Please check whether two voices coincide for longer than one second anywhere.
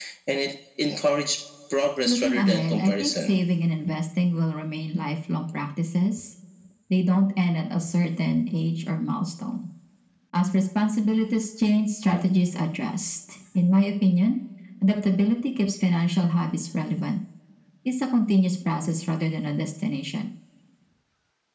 Yes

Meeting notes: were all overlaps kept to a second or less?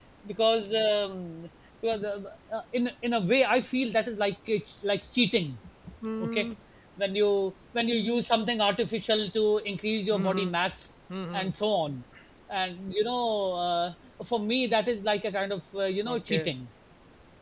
Yes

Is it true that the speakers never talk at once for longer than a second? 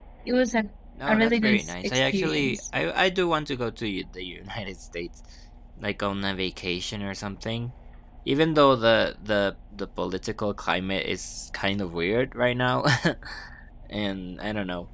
No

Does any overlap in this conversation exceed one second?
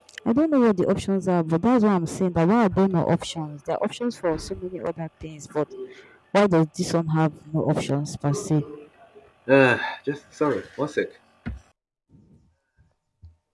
No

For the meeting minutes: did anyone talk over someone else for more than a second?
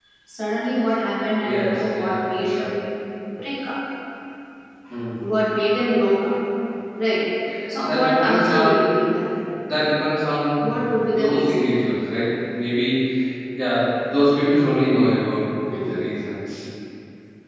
Yes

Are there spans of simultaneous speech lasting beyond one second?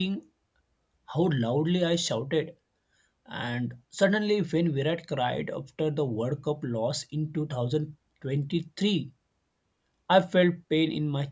No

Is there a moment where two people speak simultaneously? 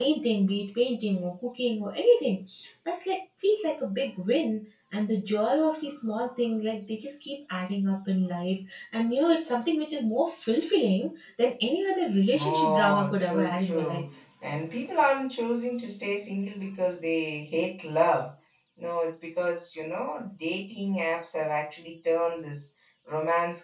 Yes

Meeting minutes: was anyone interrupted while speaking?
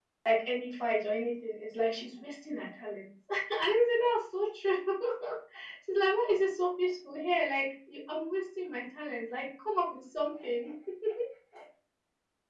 No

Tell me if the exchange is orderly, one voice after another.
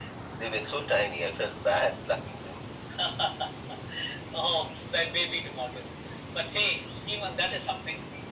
Yes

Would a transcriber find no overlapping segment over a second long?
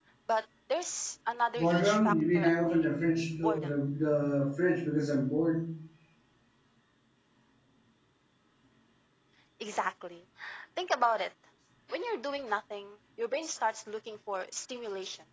No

